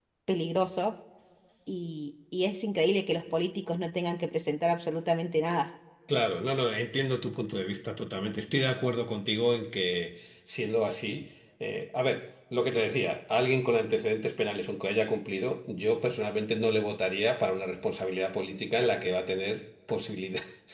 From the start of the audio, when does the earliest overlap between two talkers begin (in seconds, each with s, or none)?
none